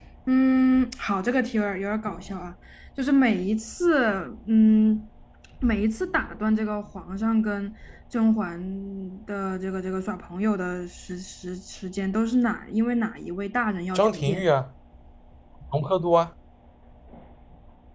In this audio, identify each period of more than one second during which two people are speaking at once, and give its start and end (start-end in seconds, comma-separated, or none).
none